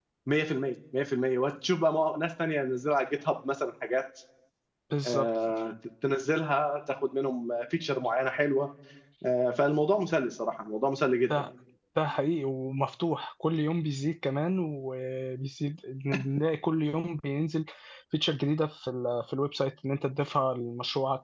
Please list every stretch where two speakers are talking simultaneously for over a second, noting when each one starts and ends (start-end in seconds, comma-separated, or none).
none